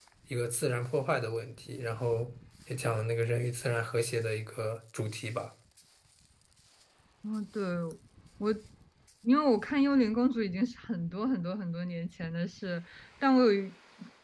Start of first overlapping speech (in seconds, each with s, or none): none